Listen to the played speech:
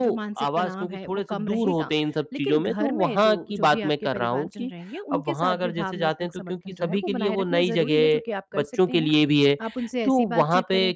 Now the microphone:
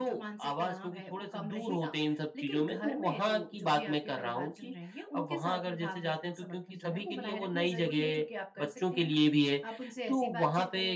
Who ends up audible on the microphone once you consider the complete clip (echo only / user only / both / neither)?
echo only